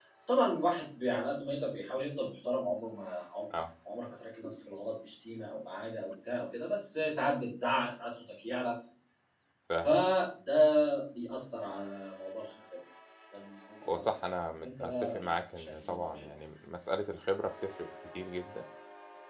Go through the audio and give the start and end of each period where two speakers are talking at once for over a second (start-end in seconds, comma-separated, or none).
14.8-16.3